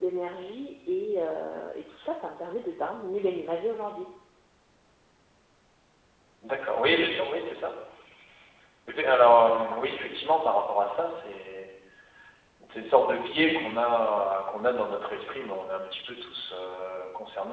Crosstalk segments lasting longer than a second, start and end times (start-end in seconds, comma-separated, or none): none